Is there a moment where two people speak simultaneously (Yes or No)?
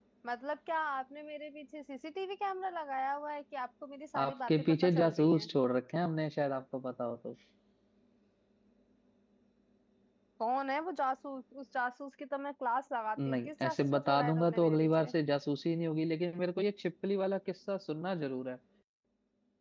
Yes